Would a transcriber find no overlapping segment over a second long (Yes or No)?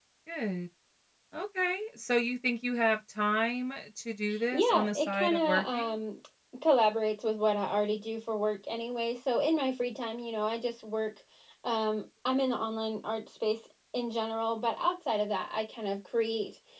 No